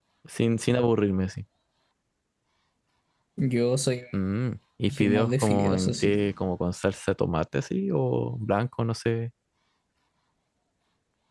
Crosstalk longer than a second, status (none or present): present